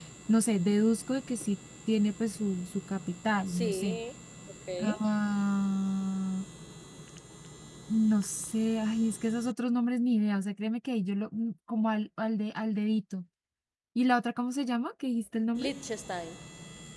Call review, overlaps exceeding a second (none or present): none